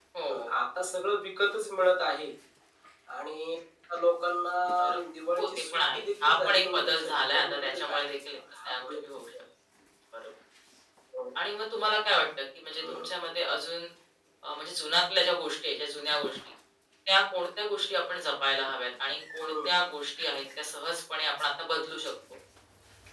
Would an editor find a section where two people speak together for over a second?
Yes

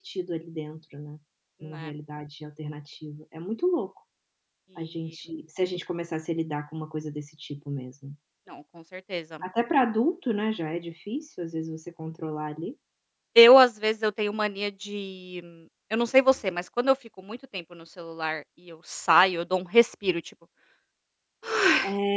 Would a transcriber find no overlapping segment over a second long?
Yes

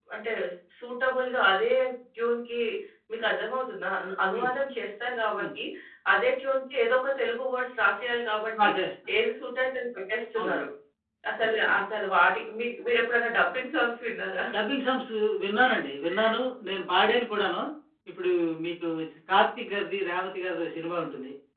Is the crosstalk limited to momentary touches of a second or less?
Yes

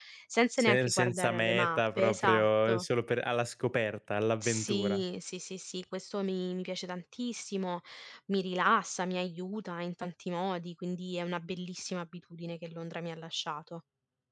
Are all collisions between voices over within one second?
No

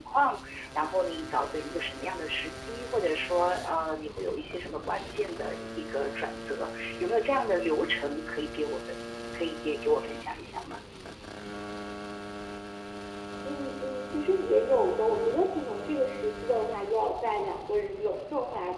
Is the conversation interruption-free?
Yes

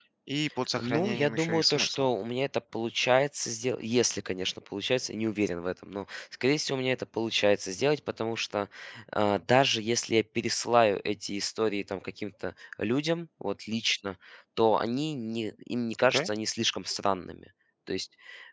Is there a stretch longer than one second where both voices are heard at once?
Yes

